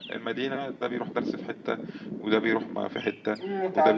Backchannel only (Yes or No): No